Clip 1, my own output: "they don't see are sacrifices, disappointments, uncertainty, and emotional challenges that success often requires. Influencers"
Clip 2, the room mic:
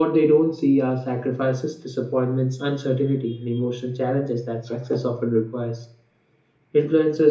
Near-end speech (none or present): none